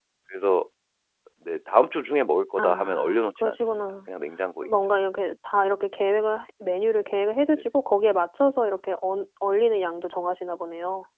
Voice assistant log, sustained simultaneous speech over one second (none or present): present